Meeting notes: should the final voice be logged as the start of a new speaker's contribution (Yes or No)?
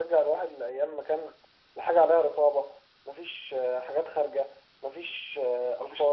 No